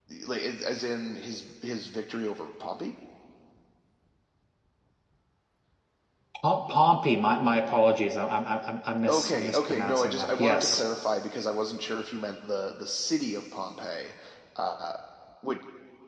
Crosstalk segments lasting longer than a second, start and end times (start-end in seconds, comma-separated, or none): 9.1-10.8